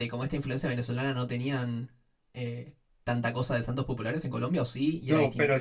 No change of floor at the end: No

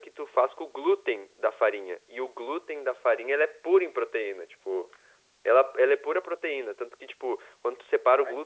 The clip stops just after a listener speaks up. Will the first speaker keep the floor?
Yes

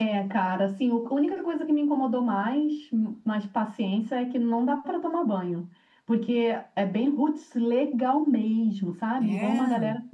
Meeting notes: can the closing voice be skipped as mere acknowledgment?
Yes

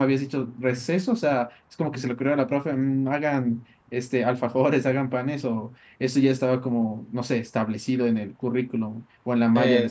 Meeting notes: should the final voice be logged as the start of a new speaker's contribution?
Yes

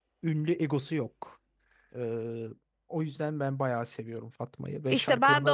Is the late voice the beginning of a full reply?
Yes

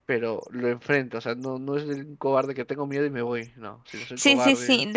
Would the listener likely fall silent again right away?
No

